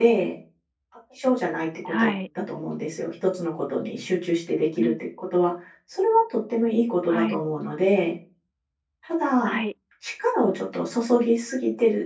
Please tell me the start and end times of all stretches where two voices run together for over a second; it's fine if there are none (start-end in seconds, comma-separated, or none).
none